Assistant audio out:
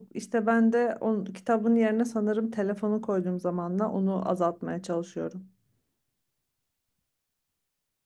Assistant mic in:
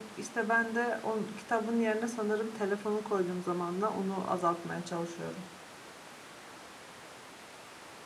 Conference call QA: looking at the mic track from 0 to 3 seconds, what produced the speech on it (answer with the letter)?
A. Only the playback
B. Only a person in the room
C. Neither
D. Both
A